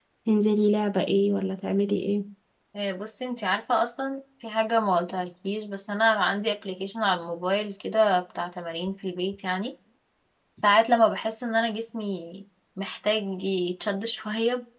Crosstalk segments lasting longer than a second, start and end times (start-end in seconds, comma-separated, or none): none